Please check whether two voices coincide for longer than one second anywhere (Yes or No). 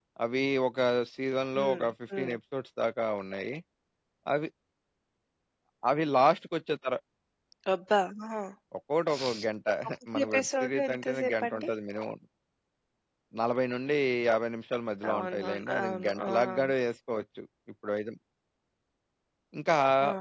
Yes